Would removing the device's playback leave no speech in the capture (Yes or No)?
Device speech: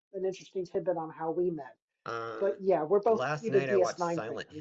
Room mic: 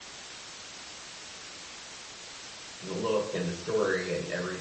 No